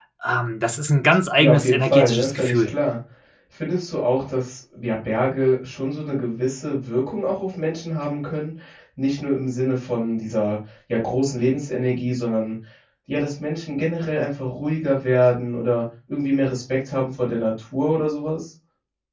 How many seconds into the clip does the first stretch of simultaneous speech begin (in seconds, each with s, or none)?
1.4 s